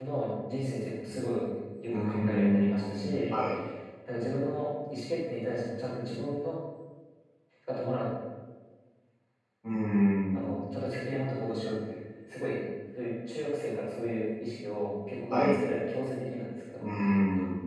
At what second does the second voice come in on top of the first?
2 s

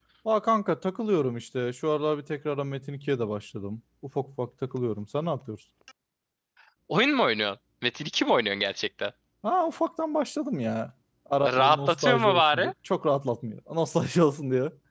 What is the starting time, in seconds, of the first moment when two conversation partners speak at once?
11 s

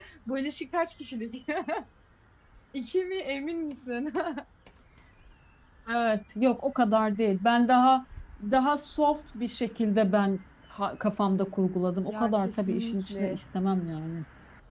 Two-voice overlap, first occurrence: 12 s

